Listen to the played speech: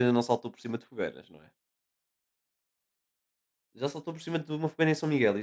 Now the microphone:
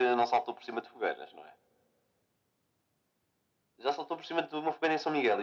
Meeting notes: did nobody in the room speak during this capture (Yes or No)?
Yes